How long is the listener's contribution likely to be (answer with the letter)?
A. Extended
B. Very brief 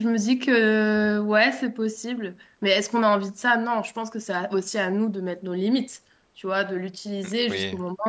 B